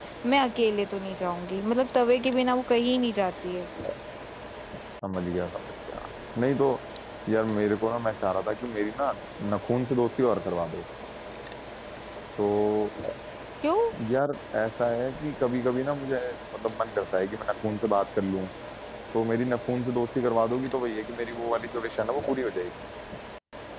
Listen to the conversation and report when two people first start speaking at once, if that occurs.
none

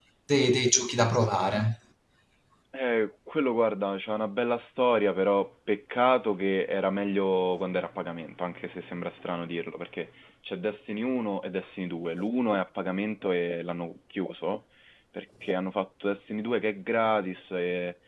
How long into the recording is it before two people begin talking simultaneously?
none

